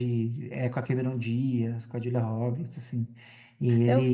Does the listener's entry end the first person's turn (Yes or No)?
No